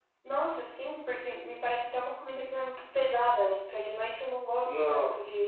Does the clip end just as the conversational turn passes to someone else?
No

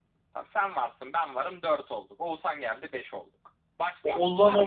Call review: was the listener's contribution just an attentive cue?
No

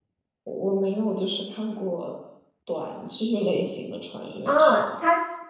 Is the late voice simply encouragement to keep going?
No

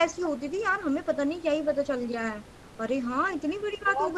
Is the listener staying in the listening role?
No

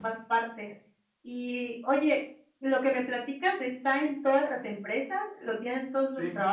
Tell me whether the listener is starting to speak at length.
Yes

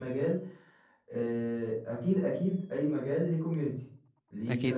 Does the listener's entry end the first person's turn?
No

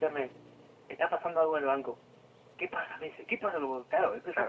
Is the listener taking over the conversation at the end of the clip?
Yes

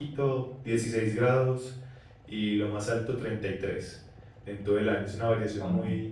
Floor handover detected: No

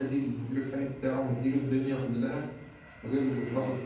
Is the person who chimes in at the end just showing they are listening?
Yes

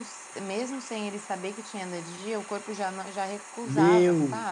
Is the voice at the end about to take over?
Yes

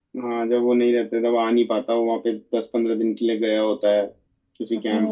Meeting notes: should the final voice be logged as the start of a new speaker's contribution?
Yes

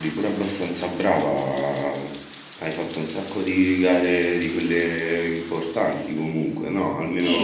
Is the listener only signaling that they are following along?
No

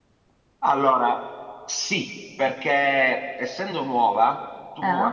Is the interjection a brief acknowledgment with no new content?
Yes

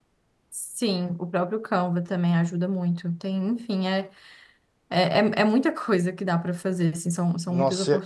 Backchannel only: No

